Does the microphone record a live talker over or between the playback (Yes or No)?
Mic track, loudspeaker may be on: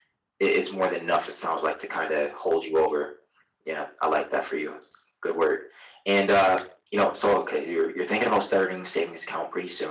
No